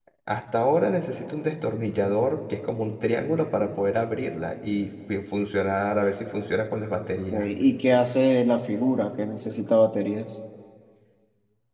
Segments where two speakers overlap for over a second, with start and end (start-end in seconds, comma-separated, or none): none